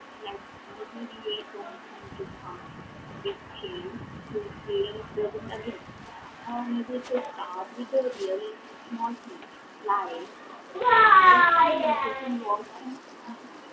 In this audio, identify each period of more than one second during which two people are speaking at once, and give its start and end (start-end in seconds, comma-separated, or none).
11.1-12.4